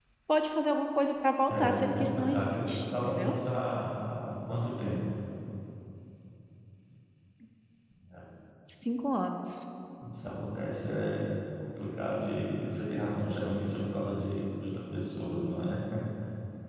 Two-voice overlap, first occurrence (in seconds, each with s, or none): 1.5 s